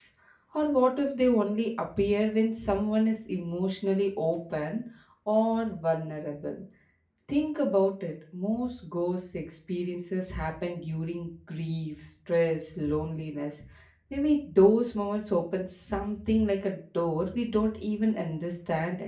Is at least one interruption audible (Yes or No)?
No